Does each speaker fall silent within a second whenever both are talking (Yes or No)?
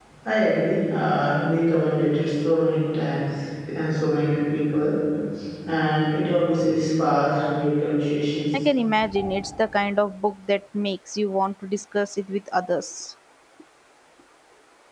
Yes